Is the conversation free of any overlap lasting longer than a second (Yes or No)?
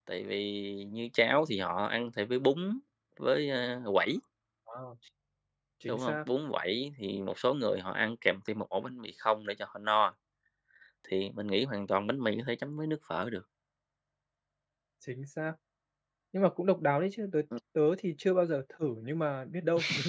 Yes